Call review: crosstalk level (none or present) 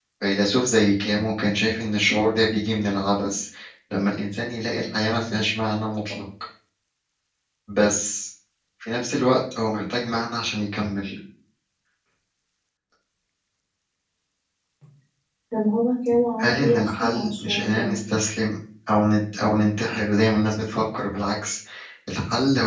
present